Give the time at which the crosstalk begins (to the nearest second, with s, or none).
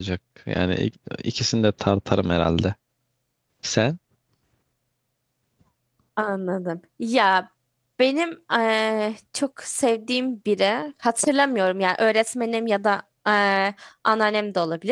none